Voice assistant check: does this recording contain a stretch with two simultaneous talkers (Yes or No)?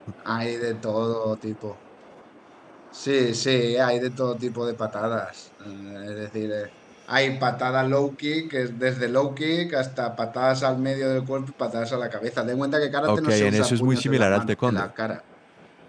Yes